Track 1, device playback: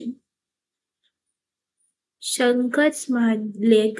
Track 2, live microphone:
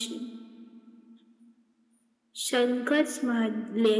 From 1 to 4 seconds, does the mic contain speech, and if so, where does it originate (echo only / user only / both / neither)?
echo only